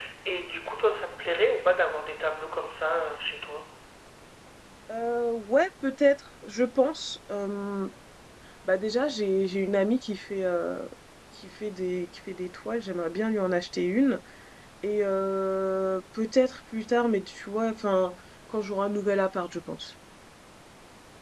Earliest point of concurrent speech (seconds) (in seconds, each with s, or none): none